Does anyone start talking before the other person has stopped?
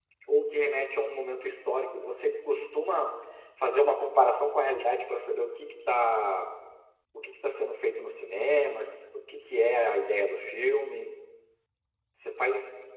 No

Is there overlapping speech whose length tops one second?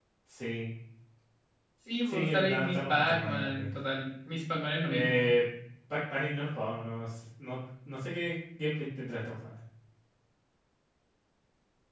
Yes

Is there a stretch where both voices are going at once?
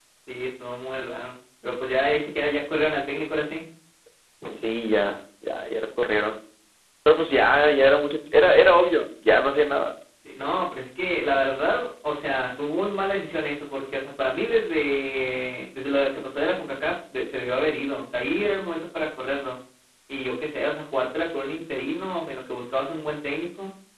No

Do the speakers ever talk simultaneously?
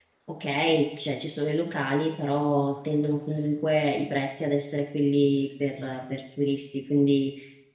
No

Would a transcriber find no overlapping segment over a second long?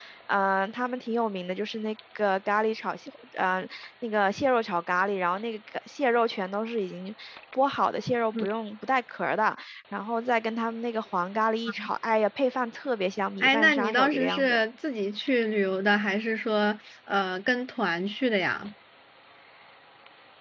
No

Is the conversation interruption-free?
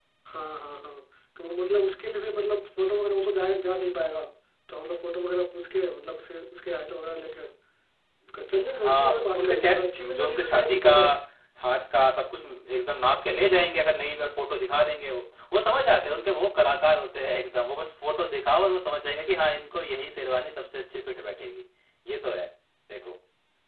No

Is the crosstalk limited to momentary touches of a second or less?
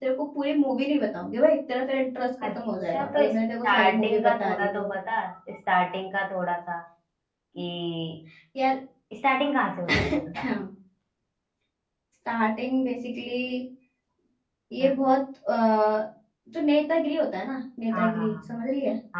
No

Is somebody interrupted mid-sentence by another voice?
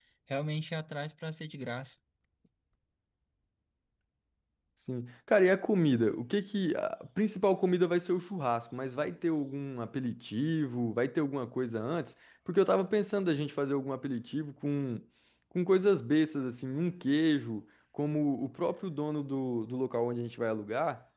No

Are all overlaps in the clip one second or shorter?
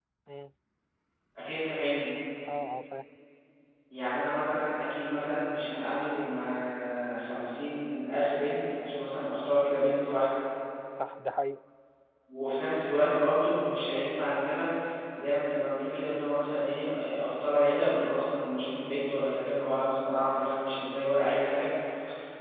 Yes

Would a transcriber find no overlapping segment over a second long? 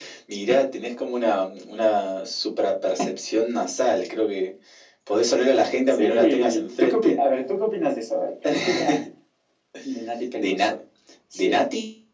No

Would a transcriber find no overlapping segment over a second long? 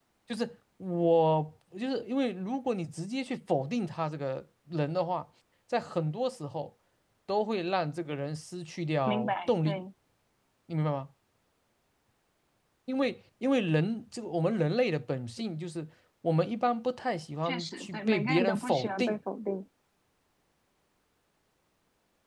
No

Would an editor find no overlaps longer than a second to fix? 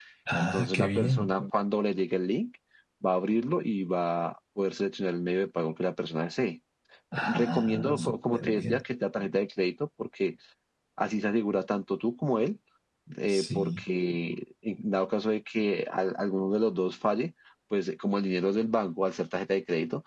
No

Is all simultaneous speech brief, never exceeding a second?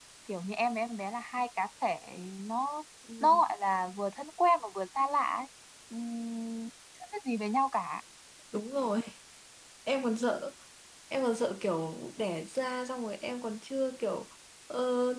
Yes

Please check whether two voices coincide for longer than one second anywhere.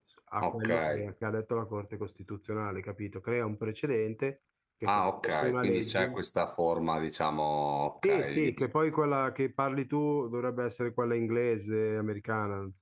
Yes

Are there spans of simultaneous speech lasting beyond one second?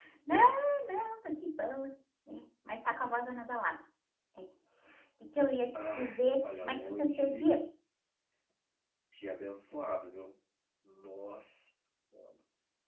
Yes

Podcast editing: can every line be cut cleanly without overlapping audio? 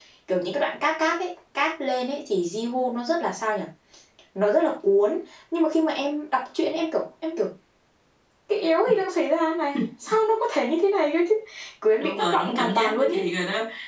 No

